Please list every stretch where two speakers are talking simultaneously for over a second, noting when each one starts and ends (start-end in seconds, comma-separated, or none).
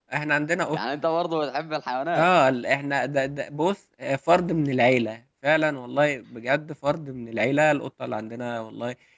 none